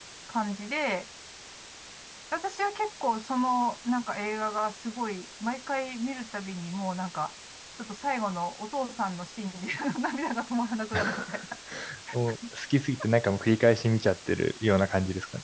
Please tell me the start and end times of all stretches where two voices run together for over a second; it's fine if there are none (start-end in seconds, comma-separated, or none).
none